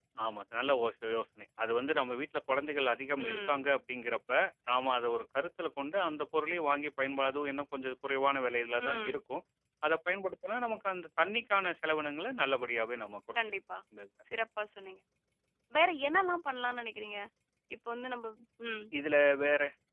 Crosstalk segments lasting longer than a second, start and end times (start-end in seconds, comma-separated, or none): none